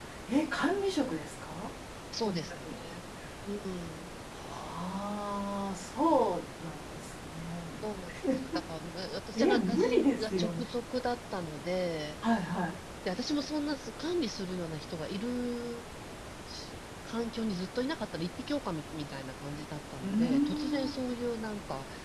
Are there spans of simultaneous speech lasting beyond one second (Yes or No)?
Yes